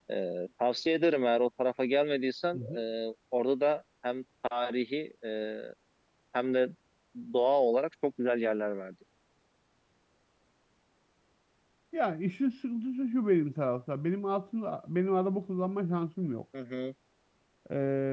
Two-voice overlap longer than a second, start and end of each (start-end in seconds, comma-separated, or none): none